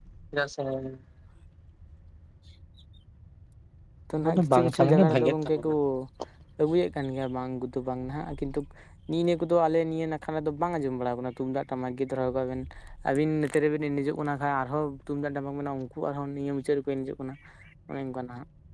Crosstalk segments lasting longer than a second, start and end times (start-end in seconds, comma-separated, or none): 4.3-5.6